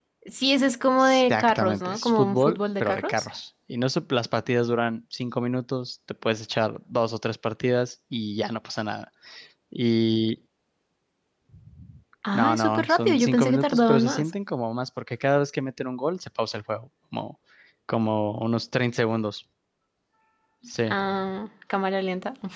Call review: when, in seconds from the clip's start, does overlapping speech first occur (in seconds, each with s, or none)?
1.0 s